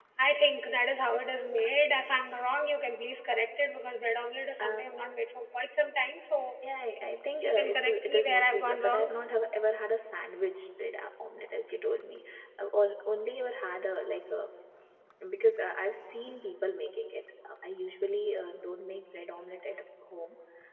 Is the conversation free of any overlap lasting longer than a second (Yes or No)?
No